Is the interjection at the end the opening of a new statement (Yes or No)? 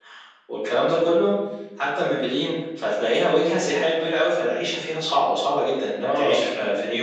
No